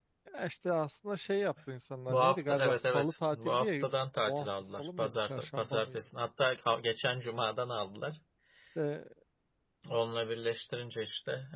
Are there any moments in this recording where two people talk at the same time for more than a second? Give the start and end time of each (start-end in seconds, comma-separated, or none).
2.1-3.9, 4.3-6.0